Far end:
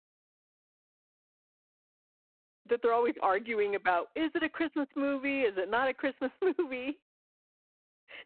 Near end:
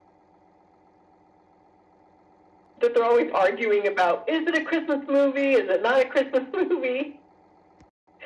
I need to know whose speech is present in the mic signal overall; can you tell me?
echo only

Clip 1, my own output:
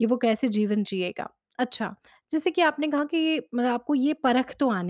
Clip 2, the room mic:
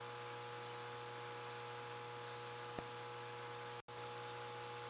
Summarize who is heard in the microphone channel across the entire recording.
neither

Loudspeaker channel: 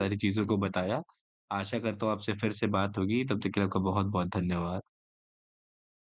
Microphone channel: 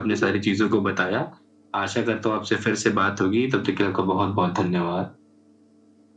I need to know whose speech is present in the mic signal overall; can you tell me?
echo only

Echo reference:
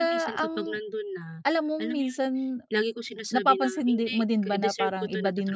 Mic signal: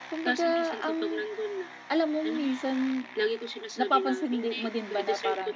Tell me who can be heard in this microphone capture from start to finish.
echo only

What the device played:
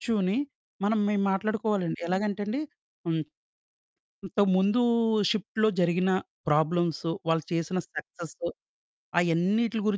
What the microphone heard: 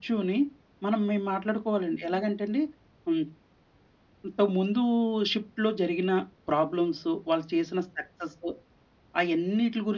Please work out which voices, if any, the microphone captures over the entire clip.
echo only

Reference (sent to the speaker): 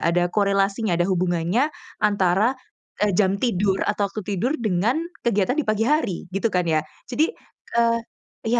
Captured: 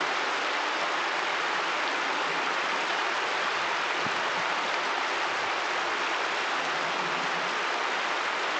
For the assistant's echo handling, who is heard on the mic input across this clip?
neither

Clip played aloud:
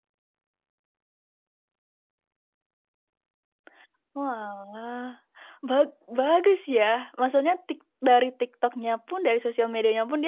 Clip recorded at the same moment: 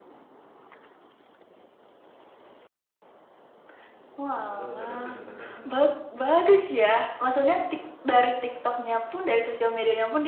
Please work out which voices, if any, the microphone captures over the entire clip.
both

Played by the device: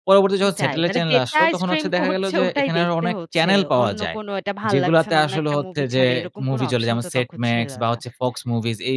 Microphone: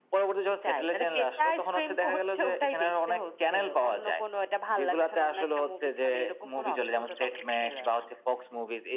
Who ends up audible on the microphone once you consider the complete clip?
echo only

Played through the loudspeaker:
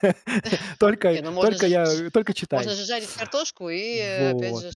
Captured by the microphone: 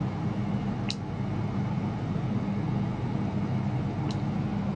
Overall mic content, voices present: neither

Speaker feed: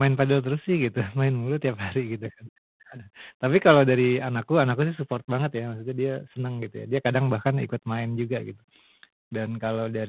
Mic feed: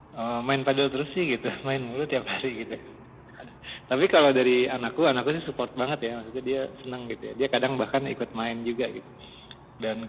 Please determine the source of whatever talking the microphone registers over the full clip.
echo only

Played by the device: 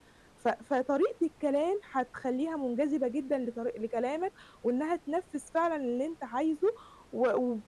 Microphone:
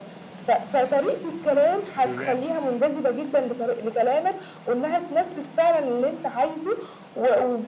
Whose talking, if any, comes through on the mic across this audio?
both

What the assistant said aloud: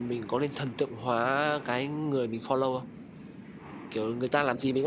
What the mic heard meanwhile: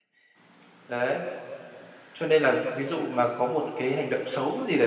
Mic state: user only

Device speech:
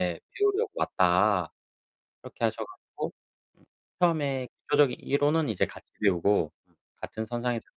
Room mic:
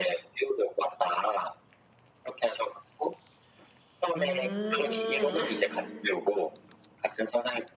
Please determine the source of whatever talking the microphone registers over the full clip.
both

